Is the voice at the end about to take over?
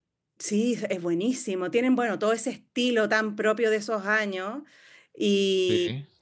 No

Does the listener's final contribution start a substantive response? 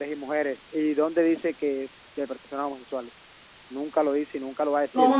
Yes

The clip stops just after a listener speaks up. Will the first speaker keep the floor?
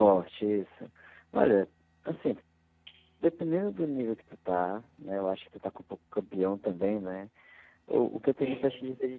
Yes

